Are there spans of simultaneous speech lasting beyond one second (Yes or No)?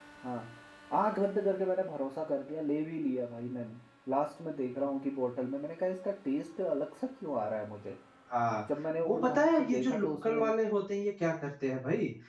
Yes